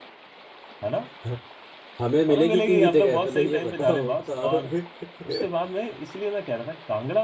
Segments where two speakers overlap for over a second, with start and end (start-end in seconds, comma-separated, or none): 2.3-4.6